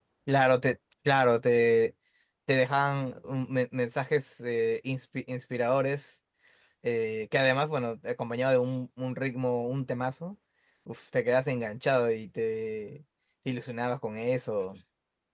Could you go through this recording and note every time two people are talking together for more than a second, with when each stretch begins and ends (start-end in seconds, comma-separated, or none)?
none